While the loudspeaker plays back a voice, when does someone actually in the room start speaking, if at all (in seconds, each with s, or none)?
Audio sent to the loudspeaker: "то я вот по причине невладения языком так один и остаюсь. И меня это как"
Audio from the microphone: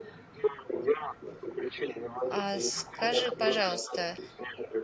2.3 s